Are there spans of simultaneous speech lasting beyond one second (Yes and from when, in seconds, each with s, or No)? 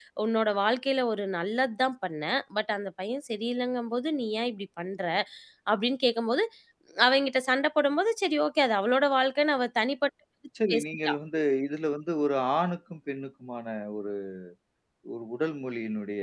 No